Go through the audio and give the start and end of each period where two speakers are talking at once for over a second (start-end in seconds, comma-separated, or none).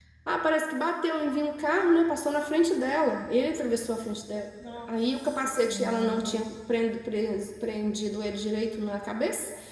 4.9-6.5